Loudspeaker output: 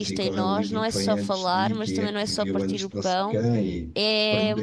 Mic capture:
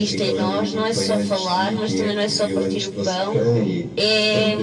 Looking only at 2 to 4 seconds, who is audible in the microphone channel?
echo only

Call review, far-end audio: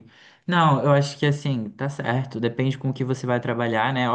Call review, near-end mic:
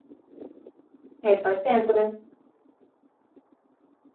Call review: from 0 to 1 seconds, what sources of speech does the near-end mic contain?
neither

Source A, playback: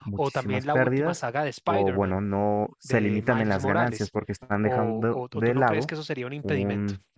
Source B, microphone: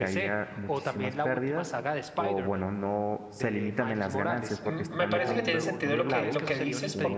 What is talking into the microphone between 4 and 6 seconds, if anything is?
both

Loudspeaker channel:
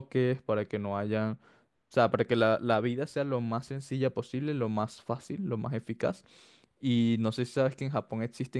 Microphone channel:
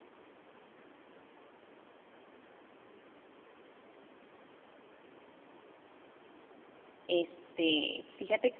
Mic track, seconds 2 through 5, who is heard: neither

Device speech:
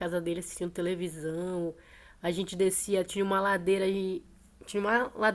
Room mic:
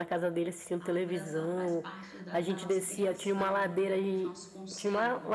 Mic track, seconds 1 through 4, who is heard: both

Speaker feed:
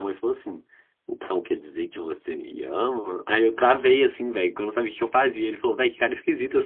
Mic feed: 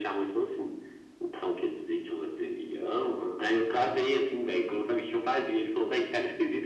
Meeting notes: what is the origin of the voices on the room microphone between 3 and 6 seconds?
echo only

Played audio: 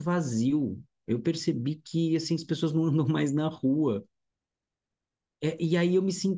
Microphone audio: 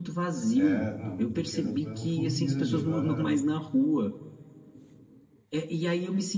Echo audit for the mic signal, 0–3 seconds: both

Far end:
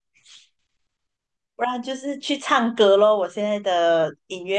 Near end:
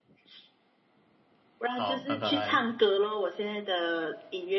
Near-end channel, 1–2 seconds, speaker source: both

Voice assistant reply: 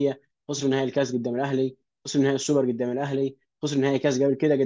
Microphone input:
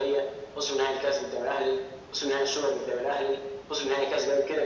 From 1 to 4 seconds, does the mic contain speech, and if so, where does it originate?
echo only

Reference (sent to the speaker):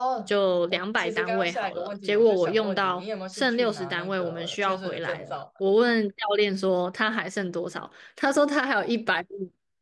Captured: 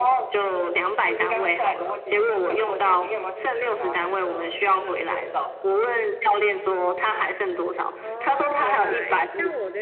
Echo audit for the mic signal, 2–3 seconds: echo only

